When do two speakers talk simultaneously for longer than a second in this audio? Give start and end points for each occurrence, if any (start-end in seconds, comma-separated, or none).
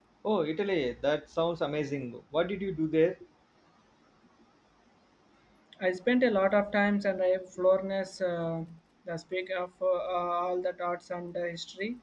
none